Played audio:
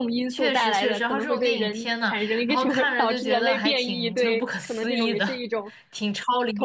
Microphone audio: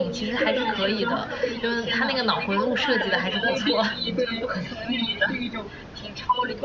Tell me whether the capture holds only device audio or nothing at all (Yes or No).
No